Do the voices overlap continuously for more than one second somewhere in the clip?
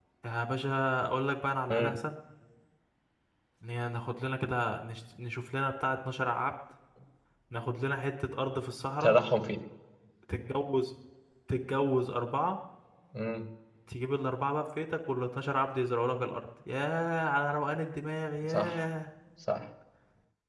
No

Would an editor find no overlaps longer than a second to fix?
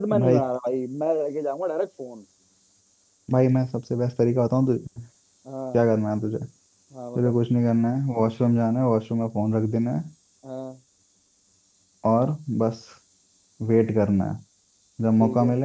Yes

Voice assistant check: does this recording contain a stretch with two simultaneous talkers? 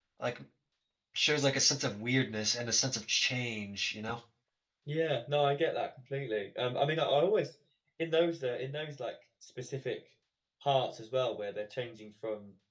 No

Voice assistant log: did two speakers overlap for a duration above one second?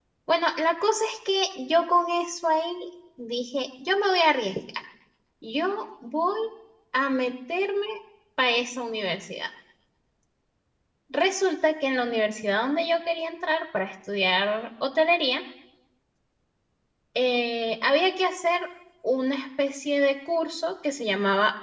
No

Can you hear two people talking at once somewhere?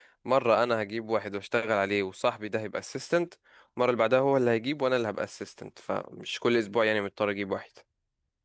No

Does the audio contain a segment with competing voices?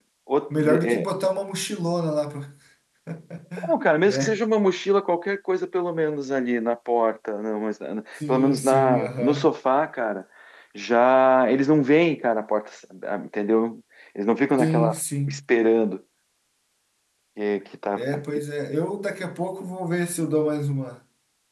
Yes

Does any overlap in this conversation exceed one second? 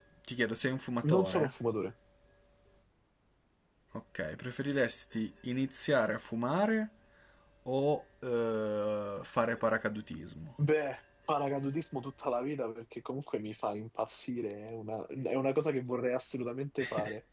No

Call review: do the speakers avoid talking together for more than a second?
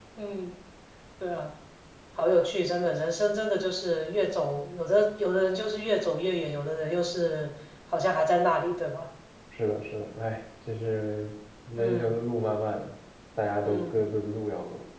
Yes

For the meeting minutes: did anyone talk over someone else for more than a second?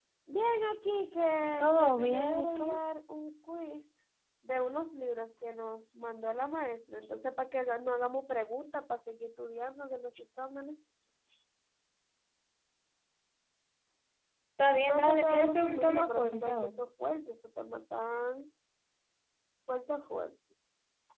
Yes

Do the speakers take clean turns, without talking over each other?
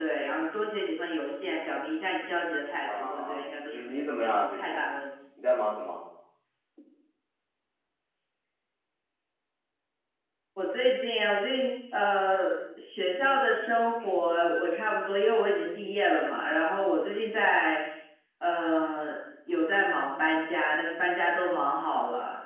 No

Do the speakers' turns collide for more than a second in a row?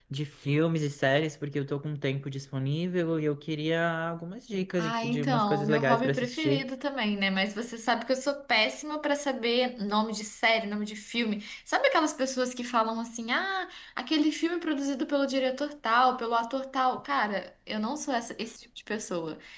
Yes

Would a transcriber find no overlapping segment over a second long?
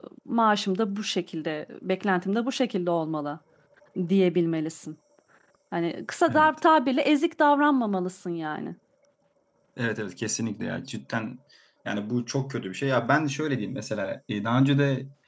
Yes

